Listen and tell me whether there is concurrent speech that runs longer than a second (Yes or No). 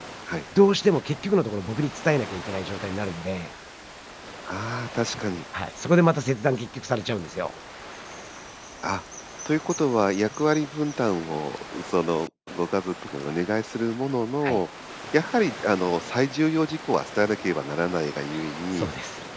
No